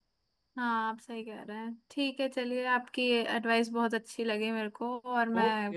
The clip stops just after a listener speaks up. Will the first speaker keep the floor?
No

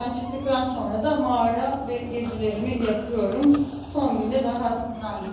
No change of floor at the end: Yes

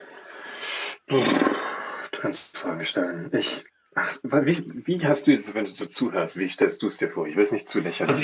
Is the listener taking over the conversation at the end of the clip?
Yes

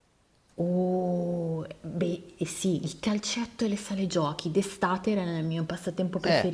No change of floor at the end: No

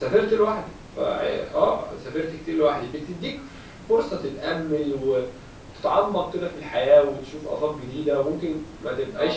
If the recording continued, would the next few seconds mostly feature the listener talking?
No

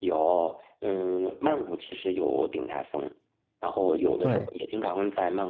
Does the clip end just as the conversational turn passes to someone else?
No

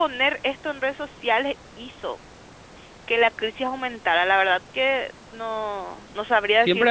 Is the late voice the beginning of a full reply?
Yes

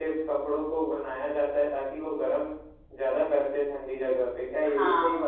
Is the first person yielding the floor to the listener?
Yes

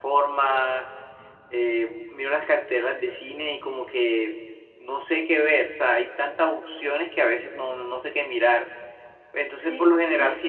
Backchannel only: Yes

